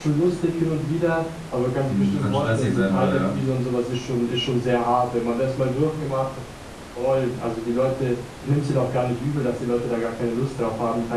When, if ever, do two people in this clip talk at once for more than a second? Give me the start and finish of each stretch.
1.9-3.4

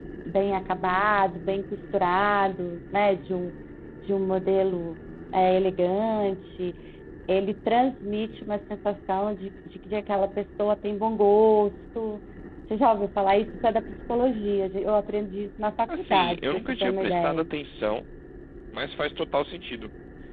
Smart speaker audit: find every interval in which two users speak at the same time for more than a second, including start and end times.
16.0-17.5

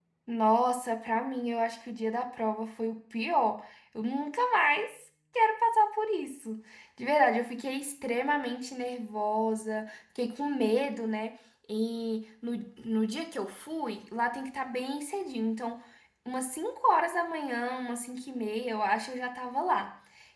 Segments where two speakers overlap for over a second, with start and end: none

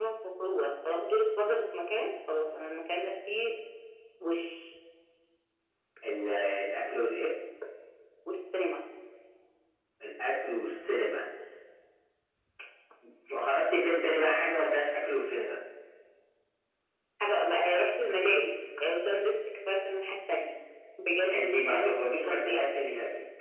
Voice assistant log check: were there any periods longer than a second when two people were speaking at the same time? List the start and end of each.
21.3-22.7

